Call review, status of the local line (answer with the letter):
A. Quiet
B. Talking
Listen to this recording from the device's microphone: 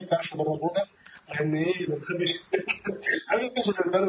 A